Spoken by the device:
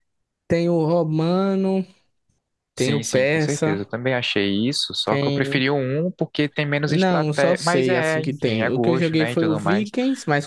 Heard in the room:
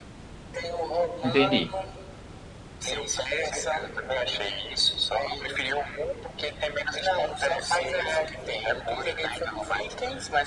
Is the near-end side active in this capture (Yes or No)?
Yes